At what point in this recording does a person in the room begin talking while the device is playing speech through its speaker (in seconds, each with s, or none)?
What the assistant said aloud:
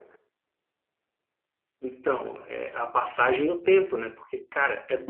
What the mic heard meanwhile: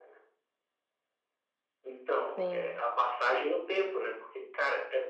2.4 s